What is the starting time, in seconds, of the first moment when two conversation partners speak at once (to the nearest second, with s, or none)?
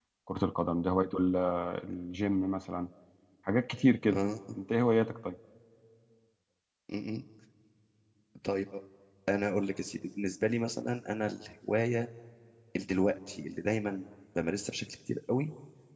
none